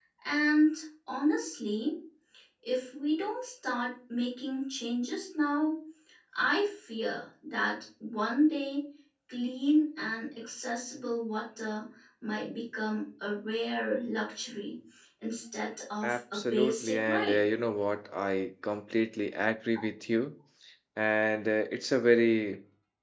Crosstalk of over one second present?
Yes, from 16.0 s

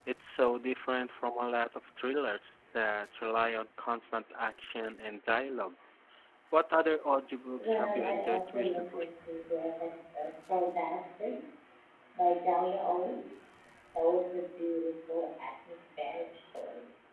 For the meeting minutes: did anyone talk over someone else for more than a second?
Yes, from 7.6 s

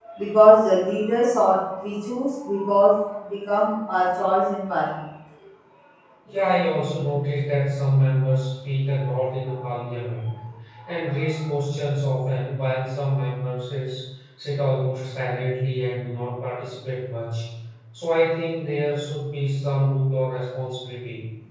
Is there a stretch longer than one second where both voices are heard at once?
No

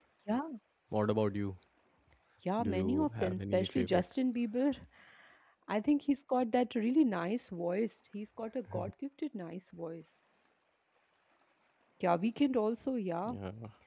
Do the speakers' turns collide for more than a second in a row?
Yes, from 2.6 s

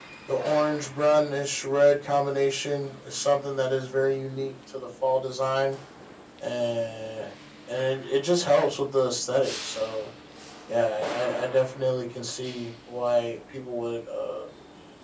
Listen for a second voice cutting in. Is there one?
No

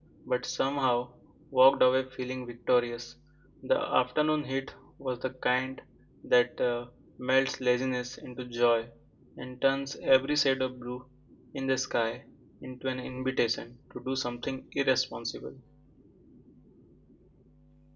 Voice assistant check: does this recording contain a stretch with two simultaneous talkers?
No

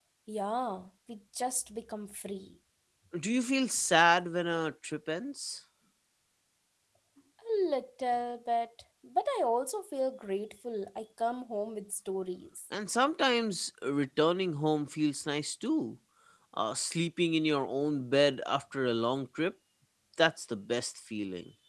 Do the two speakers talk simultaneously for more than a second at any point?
No

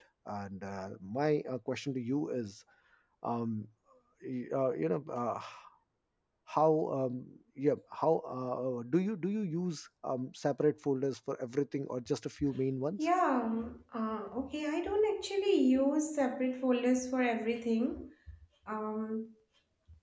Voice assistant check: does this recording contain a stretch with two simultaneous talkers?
No

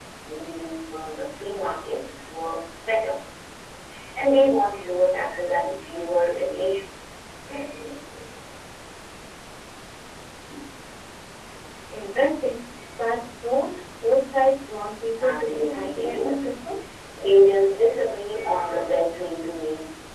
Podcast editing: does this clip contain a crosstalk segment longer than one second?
Yes, from 15.2 s

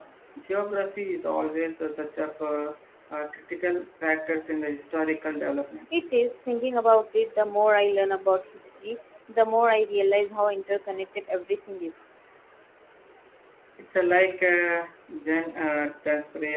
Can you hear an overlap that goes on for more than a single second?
No

